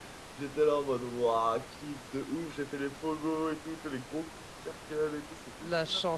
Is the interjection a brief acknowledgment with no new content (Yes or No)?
No